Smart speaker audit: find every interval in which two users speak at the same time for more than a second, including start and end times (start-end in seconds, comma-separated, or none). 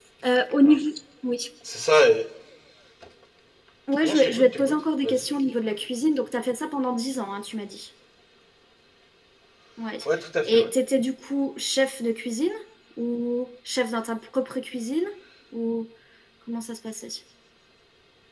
4.0-5.2